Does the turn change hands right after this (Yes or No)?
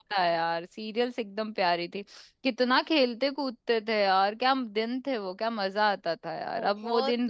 Yes